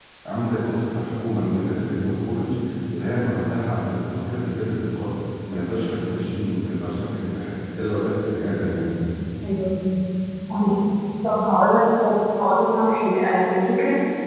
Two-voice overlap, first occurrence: none

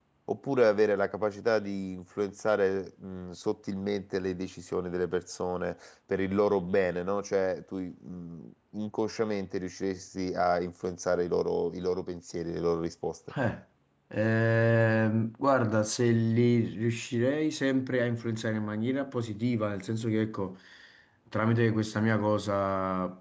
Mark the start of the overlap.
none

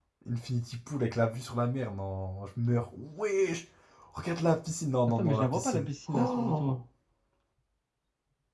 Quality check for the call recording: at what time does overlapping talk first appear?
5.1 s

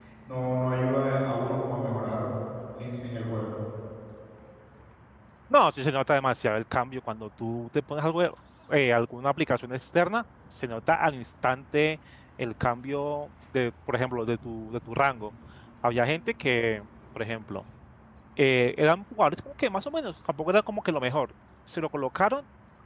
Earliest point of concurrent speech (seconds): none

